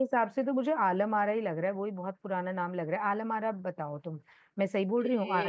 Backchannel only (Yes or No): No